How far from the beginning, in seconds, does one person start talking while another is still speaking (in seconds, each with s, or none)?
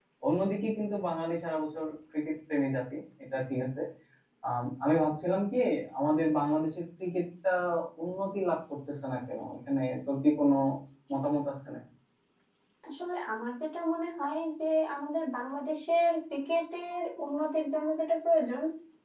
none